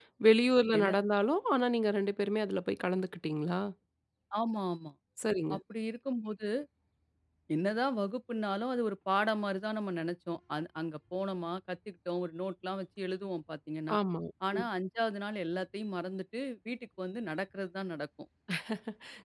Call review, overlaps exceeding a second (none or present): none